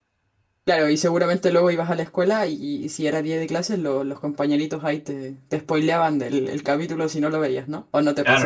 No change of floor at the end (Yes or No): No